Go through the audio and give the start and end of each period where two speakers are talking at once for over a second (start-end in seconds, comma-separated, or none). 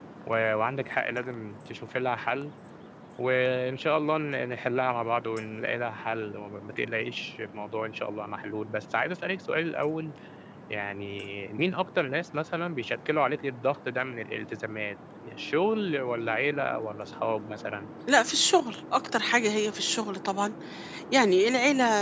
none